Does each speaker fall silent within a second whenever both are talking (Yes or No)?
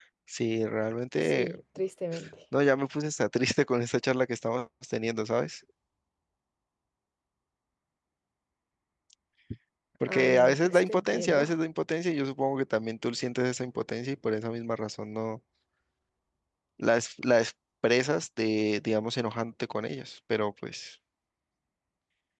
No